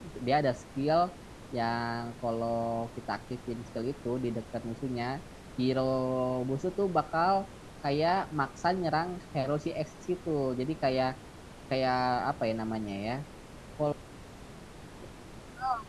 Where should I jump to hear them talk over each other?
none

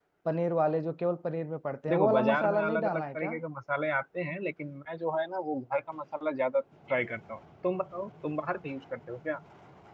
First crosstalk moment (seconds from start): 1.9 s

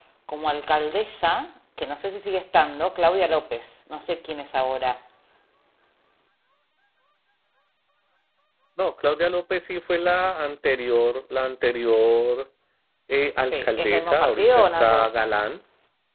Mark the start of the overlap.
13.4 s

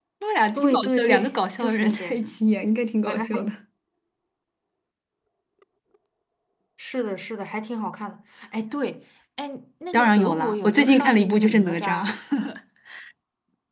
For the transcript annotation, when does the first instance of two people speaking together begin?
0.6 s

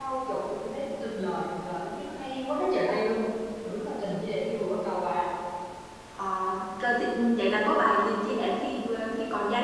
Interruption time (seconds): none

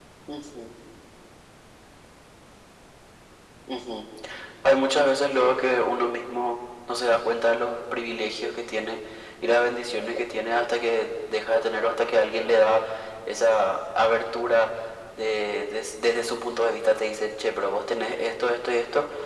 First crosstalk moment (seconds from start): none

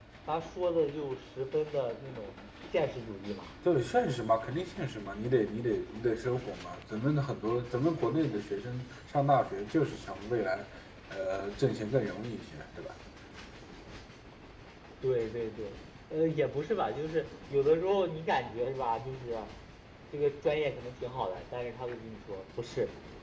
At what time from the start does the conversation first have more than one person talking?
none

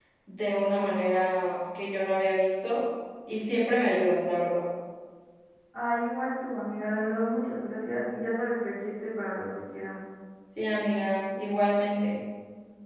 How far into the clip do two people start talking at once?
none

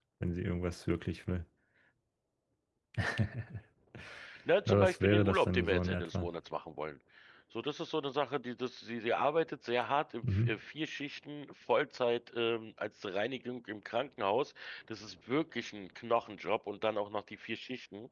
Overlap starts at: 4.7 s

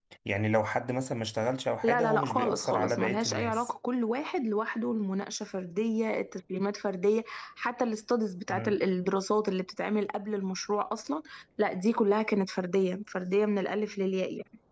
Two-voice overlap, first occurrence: 1.8 s

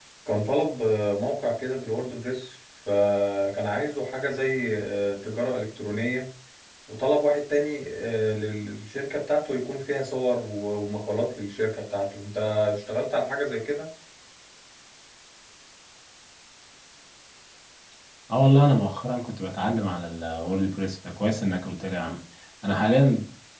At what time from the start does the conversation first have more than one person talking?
none

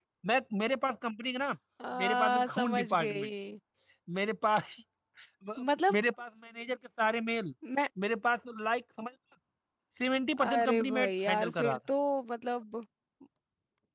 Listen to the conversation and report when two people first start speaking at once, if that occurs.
2.0 s

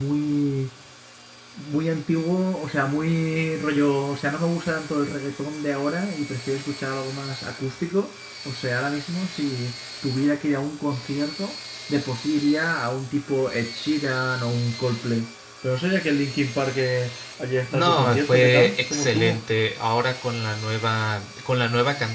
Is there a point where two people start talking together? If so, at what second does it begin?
17.7 s

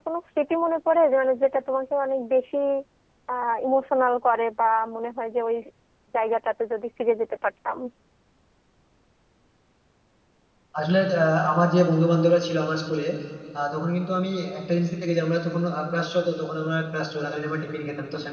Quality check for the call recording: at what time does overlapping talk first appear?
none

